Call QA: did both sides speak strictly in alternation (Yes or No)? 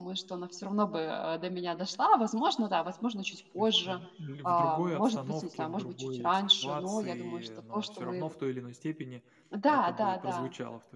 No